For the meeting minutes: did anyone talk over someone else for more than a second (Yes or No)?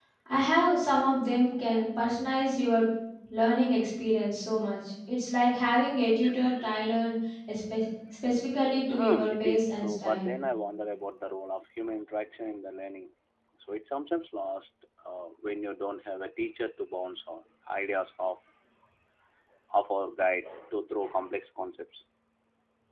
Yes